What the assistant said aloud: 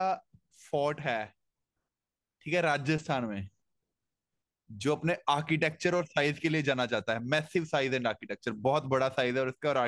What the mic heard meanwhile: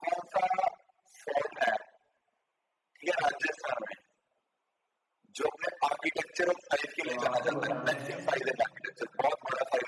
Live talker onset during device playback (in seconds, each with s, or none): 7.0 s